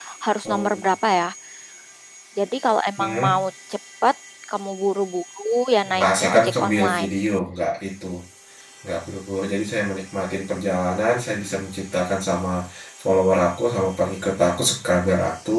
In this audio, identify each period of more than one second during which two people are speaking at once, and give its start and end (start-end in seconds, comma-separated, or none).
5.9-7.1